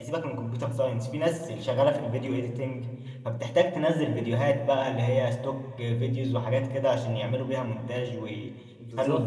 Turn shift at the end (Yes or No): No